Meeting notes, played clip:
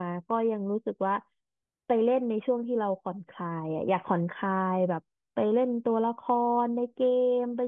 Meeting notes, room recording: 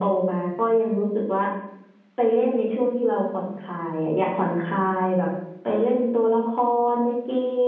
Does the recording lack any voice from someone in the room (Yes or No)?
Yes